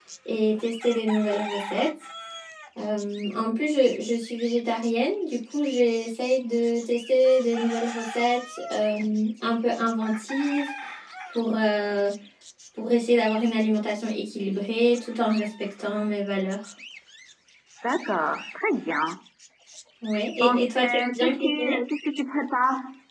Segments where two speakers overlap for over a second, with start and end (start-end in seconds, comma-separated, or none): 20.4-21.8